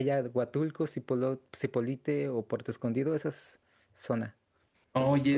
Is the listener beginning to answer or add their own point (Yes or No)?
Yes